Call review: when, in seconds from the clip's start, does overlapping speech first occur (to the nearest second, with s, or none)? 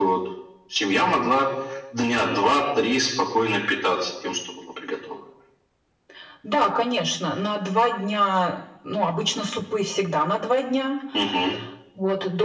none